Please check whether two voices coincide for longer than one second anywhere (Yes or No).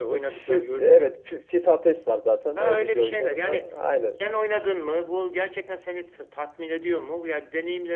Yes